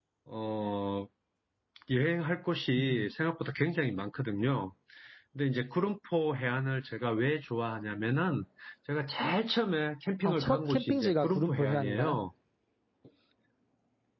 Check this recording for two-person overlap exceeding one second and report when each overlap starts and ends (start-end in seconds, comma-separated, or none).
10.2-12.2